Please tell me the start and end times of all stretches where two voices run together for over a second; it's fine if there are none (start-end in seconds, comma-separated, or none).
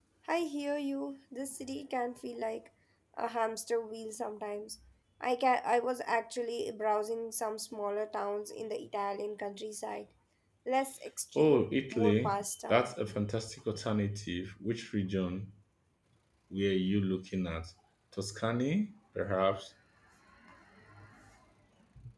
11.4-12.9